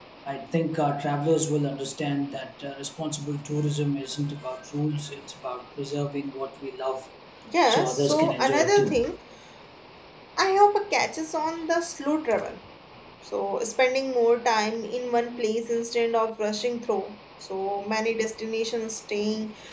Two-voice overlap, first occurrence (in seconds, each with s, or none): 7.7 s